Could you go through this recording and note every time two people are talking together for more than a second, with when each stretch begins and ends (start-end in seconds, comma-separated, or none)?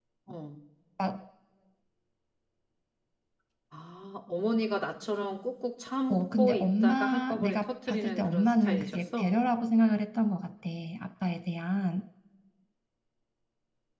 6.1-9.3